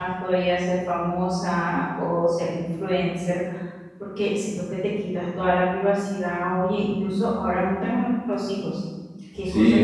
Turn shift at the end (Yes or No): Yes